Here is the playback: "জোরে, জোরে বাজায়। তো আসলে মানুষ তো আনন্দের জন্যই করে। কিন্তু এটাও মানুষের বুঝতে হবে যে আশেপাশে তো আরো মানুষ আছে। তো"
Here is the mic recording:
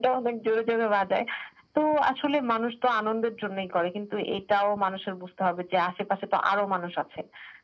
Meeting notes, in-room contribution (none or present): none